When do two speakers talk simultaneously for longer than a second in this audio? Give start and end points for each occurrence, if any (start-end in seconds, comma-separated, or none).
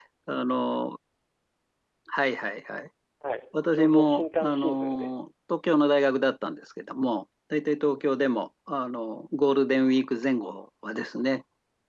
3.7-5.1